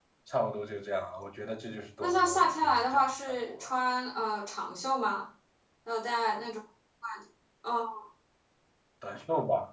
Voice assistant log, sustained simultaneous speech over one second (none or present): present